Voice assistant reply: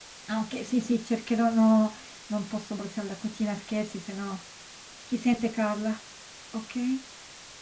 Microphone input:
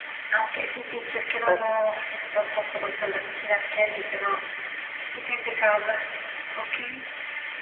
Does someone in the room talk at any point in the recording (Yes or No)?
Yes